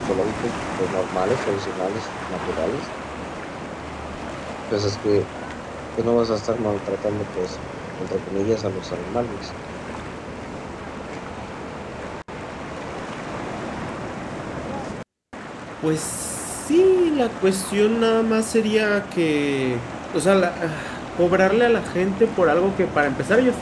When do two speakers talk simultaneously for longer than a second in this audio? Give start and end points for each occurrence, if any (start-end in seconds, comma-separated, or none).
none